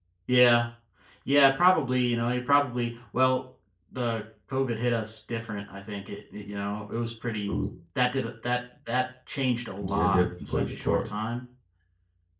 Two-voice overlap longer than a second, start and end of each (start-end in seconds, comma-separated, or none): 9.8-11.1